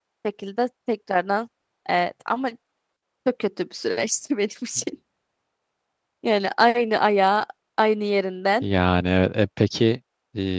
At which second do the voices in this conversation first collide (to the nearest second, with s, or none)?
none